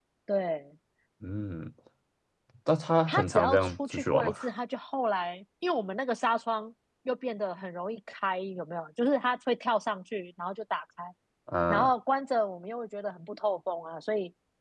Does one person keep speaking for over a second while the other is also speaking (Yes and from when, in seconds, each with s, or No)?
Yes, from 3.1 s